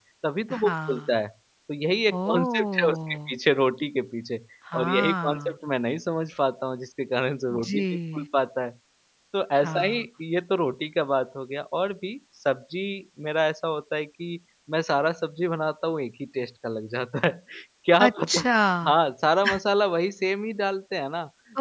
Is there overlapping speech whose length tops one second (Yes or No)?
Yes